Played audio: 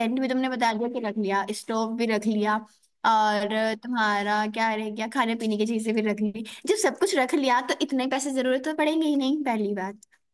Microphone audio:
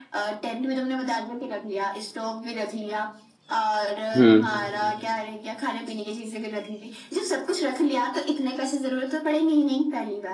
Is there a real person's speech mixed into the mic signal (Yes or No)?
Yes